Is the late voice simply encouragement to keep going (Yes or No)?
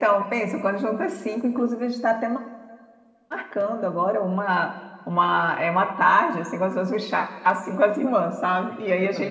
No